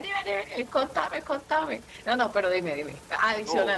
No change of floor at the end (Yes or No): Yes